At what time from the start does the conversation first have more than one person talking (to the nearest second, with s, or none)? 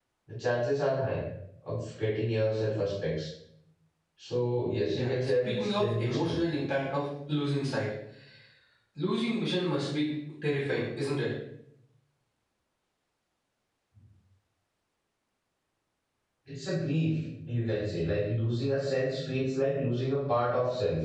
5 s